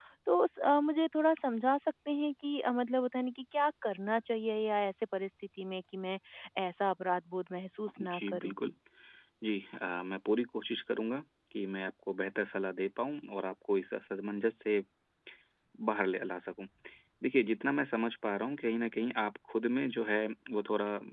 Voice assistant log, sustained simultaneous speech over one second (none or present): none